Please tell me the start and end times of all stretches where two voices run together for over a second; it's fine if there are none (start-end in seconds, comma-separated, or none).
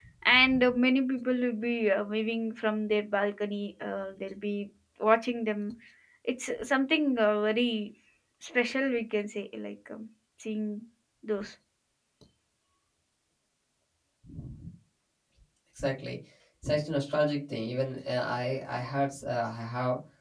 none